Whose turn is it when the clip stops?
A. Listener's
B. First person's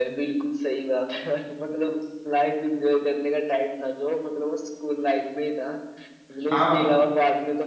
B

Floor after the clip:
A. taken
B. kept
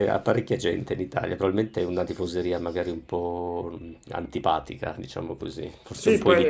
A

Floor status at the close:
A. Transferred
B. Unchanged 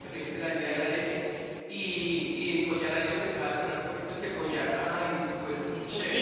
A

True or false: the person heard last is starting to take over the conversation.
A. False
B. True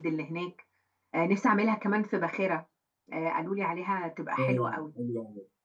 B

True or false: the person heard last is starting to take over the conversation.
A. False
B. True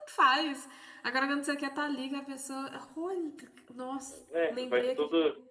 B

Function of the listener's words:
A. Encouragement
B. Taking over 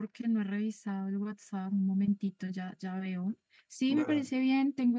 A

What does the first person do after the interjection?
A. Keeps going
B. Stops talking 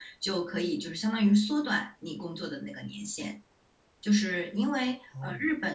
A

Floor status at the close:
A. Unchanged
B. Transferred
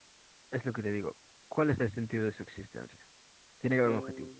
B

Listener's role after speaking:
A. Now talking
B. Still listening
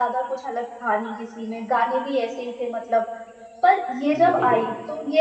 B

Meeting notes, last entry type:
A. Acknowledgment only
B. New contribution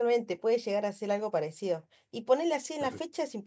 A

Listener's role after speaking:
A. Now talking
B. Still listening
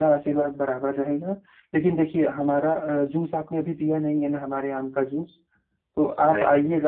B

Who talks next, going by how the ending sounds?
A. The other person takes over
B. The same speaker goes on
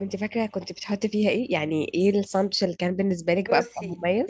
A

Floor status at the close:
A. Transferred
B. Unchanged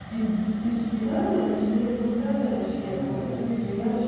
B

